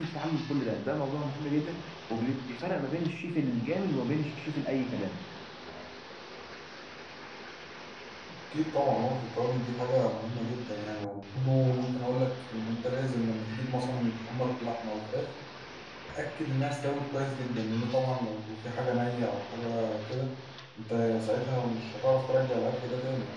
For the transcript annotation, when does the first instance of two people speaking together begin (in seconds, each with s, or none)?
none